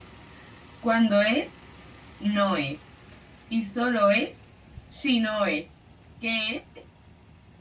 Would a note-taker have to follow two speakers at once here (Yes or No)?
No